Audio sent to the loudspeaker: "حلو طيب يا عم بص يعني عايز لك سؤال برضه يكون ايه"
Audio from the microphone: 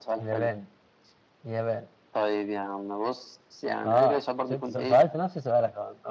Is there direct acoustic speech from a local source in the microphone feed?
Yes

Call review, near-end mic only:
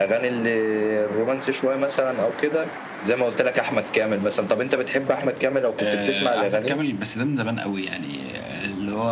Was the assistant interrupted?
No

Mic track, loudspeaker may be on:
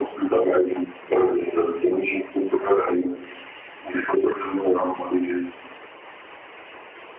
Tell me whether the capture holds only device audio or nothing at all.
Yes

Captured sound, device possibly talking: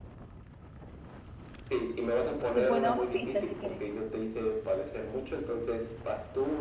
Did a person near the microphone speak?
Yes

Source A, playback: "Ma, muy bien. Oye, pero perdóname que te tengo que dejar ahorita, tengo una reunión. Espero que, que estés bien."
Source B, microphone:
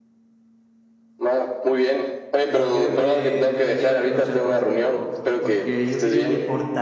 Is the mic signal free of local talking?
No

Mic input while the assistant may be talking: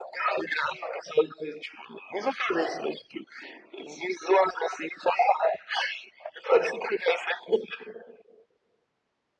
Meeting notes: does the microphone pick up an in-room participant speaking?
No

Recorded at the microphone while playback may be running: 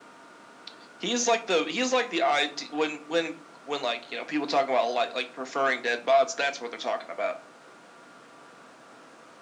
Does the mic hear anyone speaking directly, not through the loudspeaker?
No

